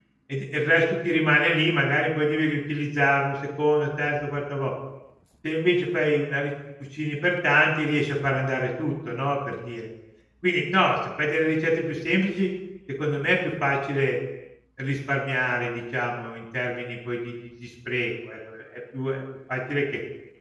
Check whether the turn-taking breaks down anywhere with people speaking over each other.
No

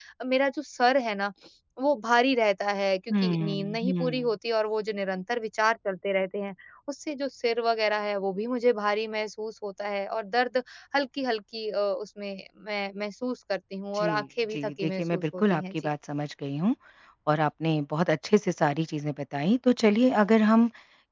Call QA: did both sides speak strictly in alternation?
No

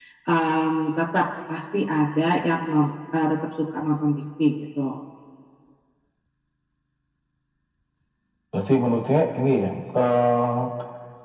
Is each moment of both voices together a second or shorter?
Yes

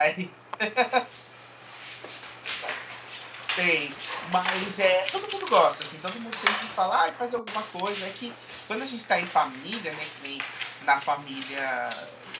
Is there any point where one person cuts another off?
No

